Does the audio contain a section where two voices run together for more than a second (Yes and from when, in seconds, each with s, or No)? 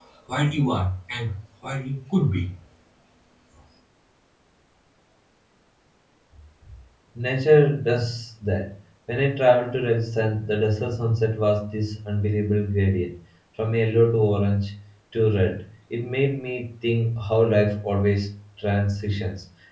No